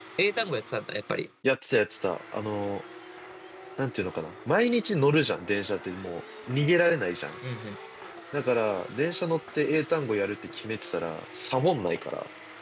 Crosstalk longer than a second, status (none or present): none